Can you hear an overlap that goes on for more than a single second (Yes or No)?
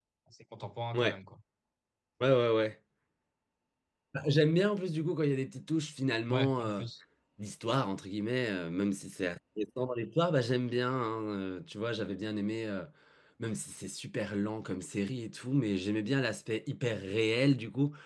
No